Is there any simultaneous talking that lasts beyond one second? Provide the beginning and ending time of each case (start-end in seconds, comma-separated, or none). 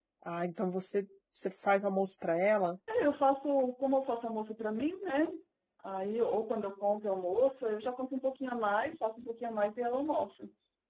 none